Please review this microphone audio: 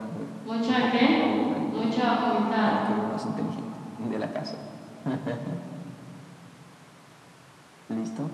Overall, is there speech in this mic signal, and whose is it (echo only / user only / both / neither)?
both